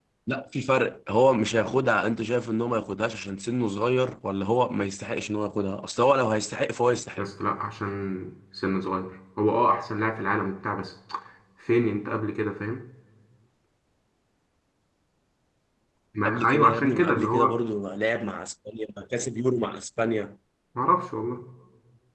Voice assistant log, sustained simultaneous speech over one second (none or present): present